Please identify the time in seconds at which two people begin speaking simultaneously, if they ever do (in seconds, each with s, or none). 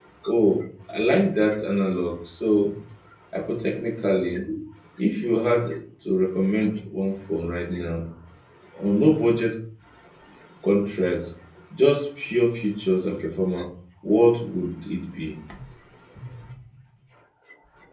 none